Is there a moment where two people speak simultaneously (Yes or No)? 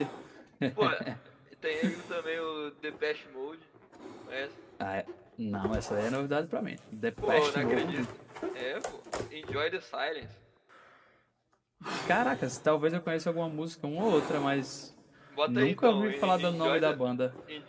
Yes